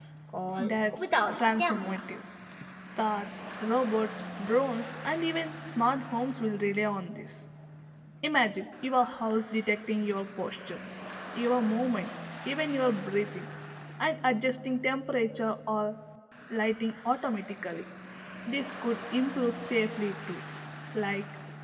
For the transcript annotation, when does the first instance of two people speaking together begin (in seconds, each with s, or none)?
0.6 s